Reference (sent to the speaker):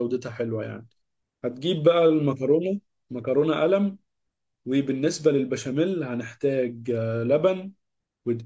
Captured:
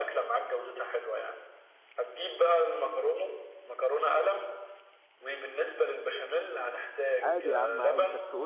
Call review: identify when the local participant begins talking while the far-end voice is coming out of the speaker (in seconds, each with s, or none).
7.2 s